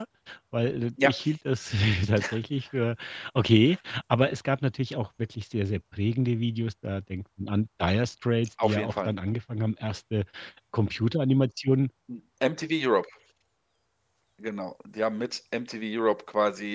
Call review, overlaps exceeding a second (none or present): none